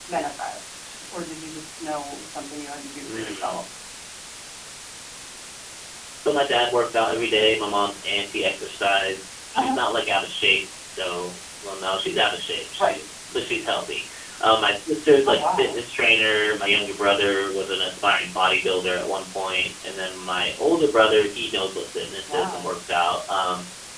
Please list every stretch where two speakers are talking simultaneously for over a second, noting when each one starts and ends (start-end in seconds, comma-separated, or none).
none